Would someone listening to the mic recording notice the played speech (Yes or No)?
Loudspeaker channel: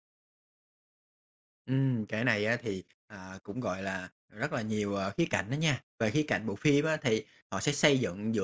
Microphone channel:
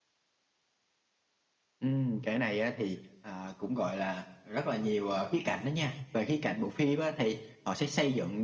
Yes